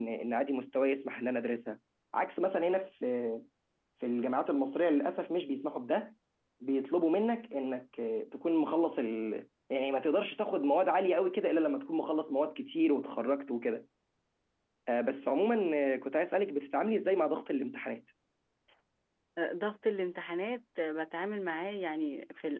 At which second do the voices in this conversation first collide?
none

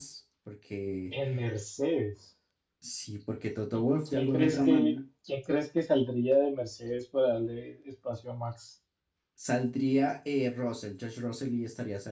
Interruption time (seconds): 3.8 s

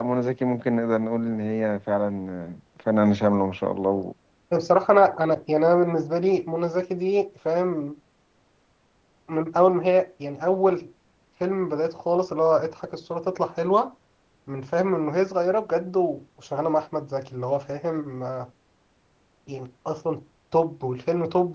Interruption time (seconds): none

